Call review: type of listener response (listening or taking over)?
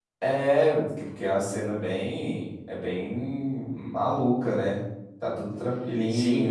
taking over